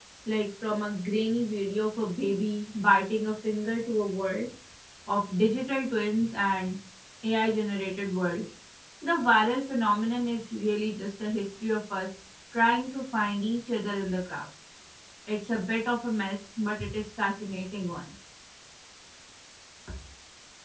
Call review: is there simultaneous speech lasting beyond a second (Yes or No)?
No